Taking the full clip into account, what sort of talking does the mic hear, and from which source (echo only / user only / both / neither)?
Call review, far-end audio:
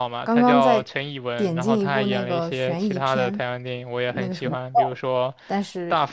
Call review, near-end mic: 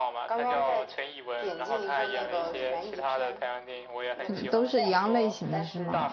both